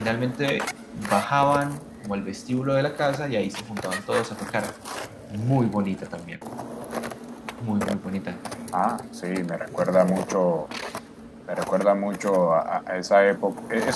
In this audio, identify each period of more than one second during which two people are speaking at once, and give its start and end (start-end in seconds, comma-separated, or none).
none